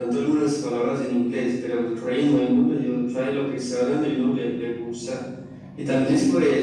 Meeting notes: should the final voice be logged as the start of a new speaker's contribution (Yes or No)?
No